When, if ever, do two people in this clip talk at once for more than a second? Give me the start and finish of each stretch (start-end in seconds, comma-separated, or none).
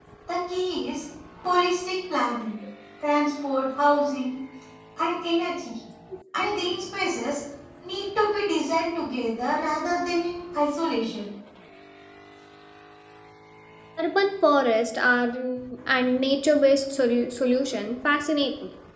none